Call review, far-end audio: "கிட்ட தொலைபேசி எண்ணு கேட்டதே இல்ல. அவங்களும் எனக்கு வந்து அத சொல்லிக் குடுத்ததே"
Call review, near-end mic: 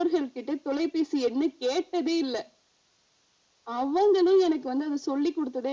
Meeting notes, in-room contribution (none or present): none